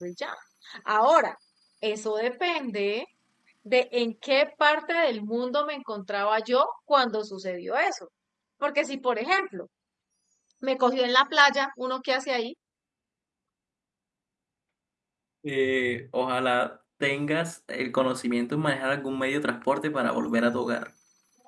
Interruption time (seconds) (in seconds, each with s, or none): none